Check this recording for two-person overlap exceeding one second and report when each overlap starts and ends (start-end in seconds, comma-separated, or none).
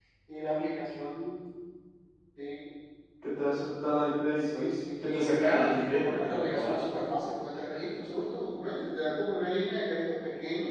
4.3-6.9